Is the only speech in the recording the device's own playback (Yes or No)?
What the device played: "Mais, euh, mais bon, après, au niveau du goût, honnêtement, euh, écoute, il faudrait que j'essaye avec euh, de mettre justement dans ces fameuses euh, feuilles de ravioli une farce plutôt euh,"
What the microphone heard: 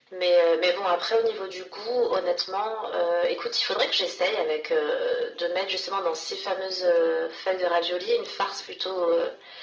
Yes